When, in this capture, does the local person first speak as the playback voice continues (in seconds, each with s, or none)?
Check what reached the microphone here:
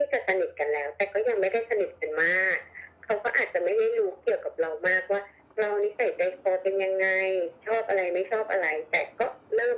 none